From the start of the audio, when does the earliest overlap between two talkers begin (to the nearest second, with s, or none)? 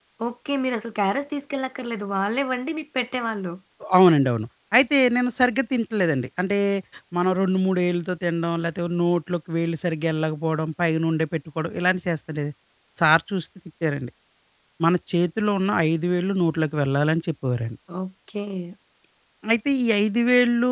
none